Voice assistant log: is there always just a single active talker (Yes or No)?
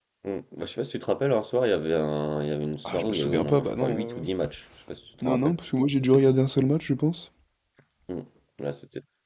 No